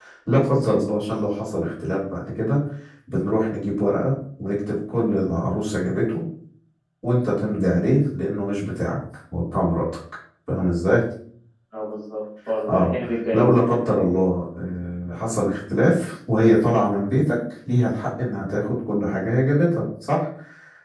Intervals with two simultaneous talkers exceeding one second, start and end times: none

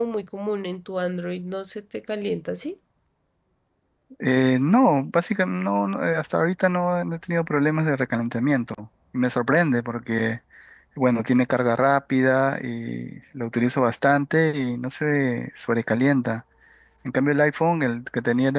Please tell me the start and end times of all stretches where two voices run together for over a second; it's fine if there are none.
none

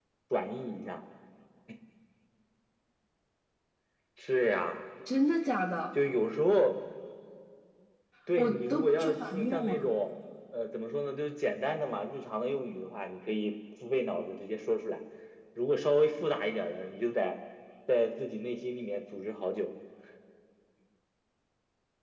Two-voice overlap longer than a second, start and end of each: 8.4-9.8

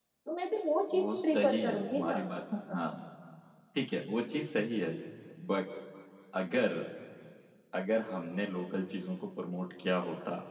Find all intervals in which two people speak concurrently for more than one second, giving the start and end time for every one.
0.9-2.2

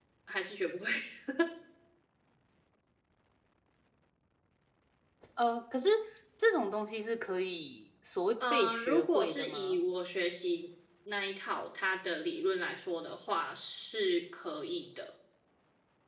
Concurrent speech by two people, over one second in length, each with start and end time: 8.5-9.8

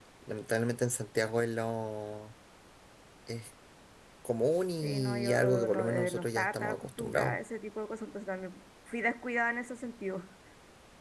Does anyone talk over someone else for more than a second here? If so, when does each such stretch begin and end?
4.8-7.4

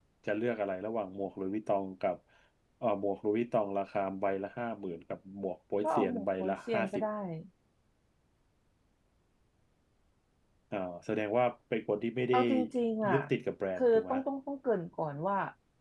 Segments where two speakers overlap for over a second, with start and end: 5.8-7.0

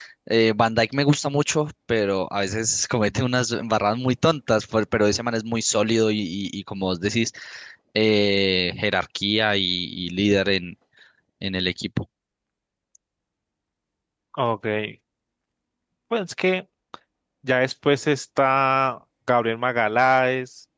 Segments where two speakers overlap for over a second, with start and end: none

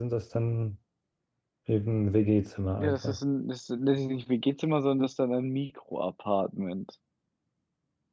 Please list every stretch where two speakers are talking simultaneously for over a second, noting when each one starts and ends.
none

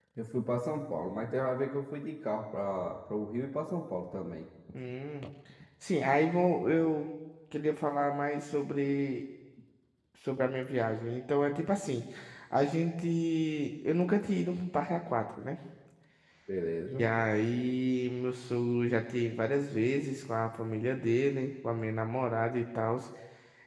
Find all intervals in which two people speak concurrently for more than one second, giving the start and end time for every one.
none

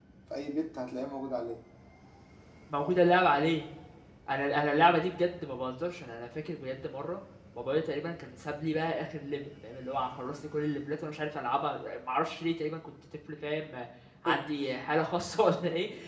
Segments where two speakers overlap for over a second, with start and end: none

